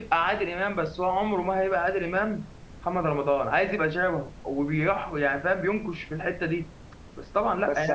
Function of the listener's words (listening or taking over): taking over